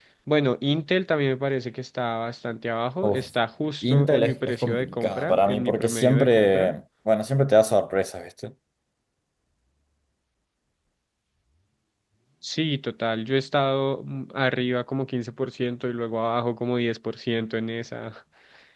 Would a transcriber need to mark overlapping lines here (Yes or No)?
Yes